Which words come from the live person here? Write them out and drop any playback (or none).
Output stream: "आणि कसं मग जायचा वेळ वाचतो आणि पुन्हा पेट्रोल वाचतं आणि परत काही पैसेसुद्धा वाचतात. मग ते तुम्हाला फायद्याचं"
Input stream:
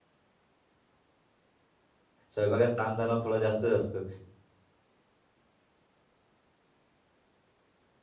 स्वयंपाकाचा ताणतणाव थोडा जास्तच असतो.